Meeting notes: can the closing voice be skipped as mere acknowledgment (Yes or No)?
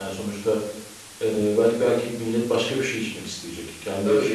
No